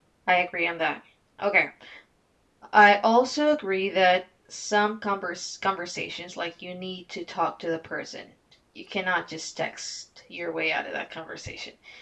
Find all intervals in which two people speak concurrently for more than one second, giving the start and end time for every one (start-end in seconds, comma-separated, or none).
none